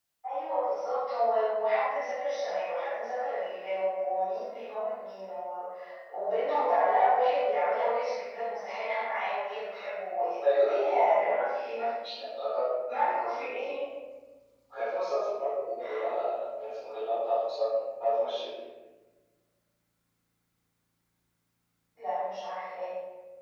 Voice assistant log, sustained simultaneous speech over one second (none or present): none